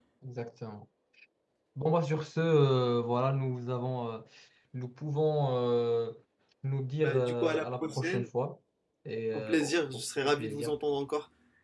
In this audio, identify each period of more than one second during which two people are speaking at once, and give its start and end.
7.0-8.2, 9.3-10.7

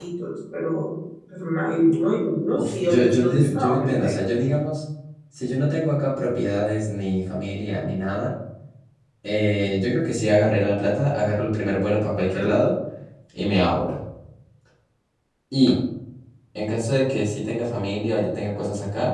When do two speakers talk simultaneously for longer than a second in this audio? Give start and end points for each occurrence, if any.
2.6-4.2

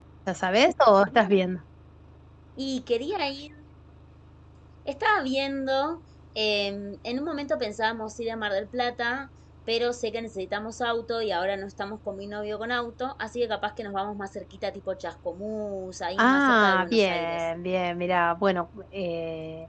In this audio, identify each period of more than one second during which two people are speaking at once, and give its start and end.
16.2-17.4

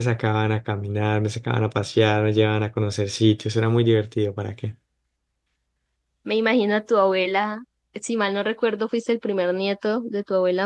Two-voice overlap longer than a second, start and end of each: none

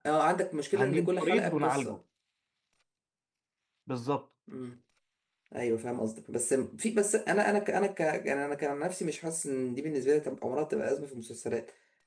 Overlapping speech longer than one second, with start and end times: 0.7-2.0

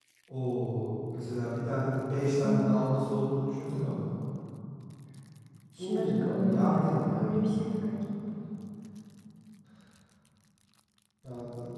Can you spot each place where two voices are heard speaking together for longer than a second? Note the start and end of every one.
5.8-7.3

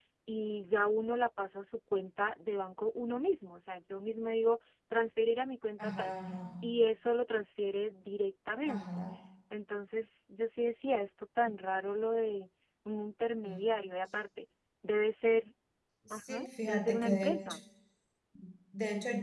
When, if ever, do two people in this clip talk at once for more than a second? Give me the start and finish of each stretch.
16.1-17.6

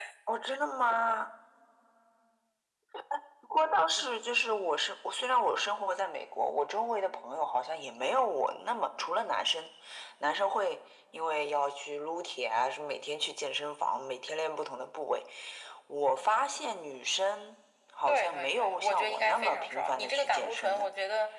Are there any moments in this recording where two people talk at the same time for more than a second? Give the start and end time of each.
18.1-20.9

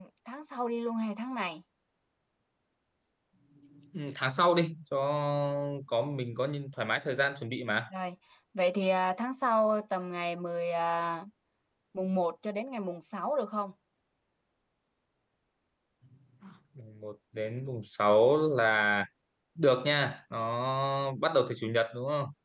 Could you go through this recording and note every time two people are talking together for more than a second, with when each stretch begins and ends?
none

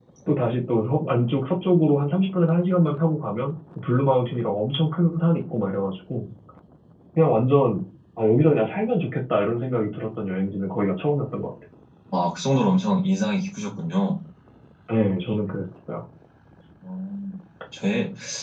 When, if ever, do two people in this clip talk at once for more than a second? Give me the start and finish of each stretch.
none

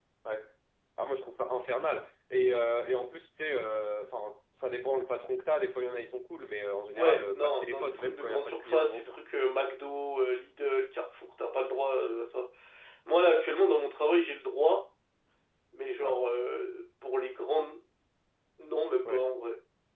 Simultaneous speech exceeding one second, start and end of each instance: 7.0-9.2

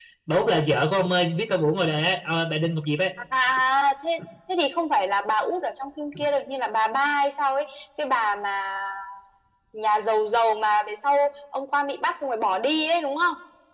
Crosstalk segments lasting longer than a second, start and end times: none

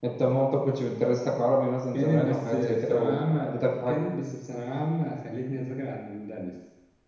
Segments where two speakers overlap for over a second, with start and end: 1.9-4.1

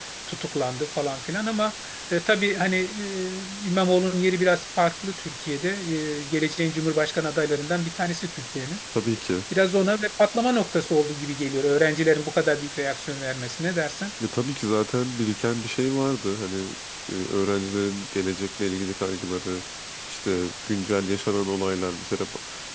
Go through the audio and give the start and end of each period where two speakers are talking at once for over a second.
none

